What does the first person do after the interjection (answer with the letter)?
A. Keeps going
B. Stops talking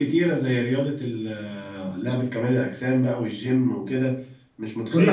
A